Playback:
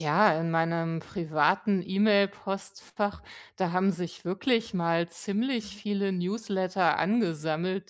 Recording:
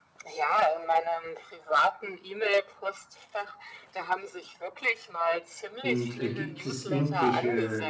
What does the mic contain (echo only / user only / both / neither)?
both